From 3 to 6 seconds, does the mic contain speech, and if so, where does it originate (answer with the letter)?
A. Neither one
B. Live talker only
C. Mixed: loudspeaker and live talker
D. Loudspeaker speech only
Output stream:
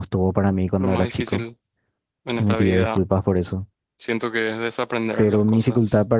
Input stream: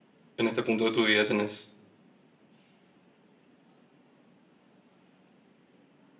A